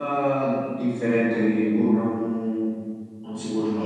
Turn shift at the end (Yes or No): Yes